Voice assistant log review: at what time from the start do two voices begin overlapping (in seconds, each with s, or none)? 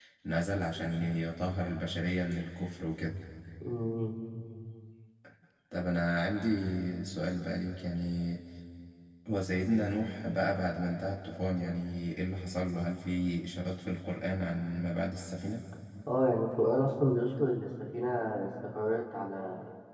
none